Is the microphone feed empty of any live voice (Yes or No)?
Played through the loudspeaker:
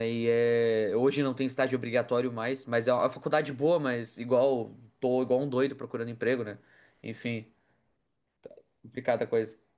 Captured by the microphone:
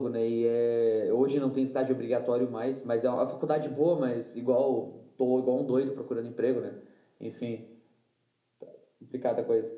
Yes